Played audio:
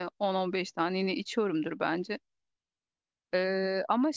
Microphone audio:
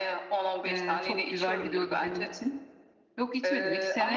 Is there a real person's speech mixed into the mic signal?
Yes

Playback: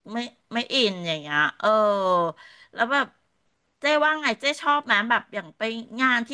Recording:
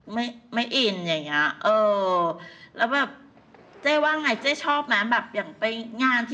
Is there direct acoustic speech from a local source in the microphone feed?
No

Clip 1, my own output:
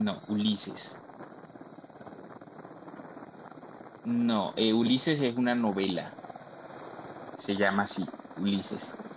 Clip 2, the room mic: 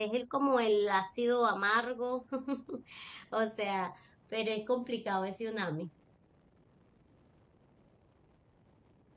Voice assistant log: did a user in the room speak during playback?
Yes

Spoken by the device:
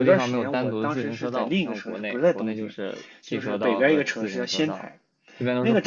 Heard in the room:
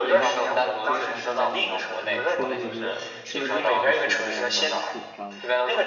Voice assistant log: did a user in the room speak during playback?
Yes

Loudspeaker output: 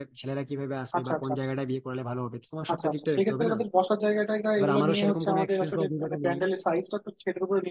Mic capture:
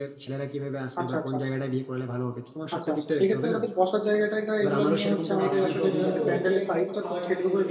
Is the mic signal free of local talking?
No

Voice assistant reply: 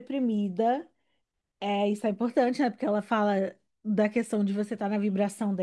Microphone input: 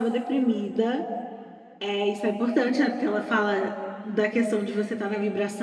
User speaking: No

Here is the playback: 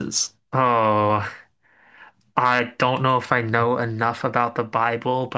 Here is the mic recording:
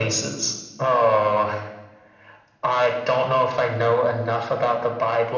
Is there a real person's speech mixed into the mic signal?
No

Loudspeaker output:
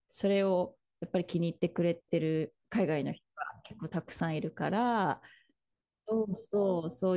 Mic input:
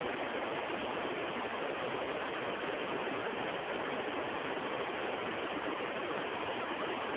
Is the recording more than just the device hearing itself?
No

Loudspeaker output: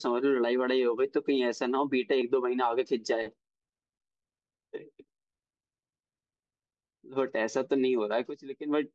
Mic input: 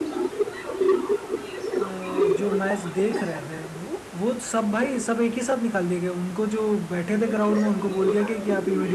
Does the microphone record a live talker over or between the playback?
Yes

